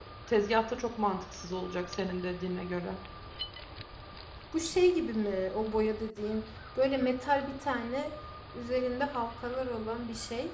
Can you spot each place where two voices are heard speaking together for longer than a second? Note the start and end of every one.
none

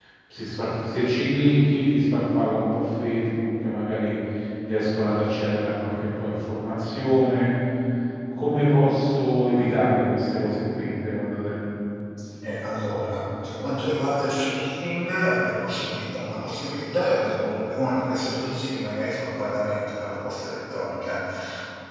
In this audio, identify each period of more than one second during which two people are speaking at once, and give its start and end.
none

